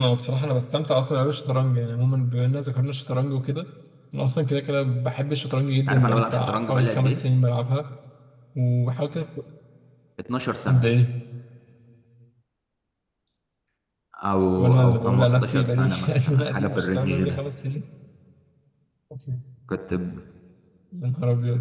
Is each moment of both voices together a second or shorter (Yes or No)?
No